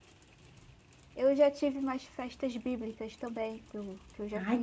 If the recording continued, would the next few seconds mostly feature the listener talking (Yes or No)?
Yes